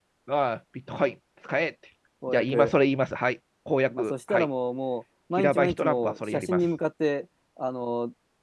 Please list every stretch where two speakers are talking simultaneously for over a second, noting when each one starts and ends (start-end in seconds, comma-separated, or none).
5.4-6.6